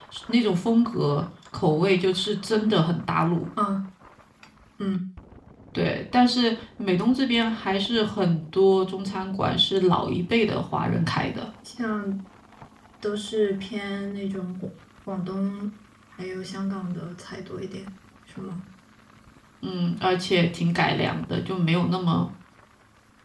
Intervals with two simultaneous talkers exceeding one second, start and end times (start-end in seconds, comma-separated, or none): none